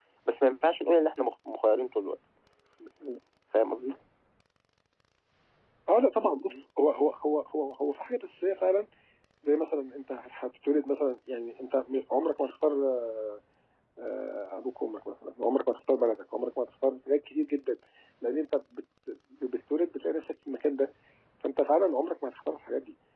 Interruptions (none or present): none